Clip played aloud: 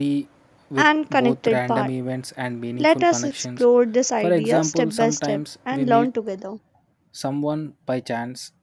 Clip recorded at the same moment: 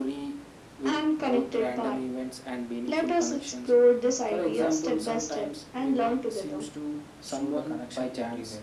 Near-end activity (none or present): present